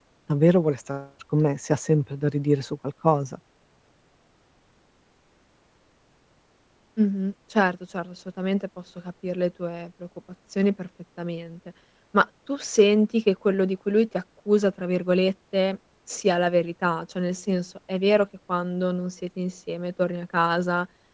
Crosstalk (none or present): none